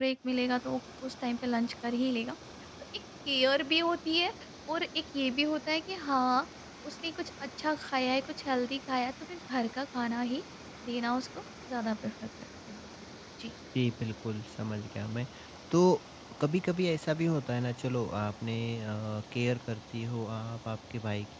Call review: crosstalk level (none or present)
none